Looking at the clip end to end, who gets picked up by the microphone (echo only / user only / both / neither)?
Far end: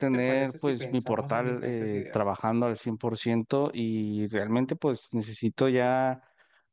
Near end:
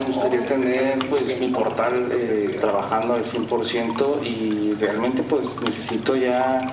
echo only